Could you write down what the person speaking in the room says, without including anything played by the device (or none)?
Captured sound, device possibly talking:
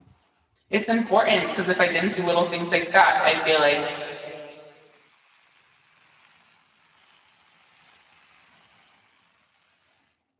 it's important because if I didn't do little things like that, I feel like